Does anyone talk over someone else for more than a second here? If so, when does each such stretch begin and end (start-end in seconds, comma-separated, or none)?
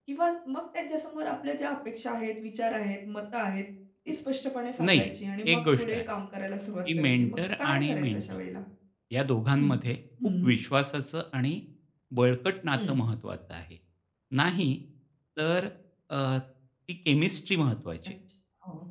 7.0-8.2